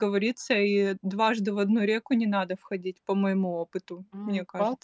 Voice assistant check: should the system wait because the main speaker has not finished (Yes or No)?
No